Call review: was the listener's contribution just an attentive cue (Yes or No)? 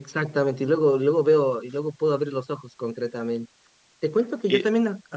Yes